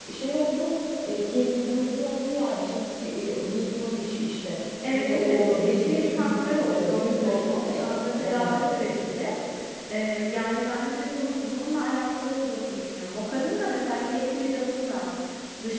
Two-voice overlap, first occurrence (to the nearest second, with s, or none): 5 s